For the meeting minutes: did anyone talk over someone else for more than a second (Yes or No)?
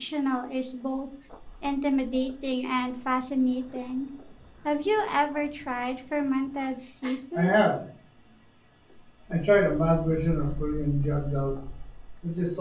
No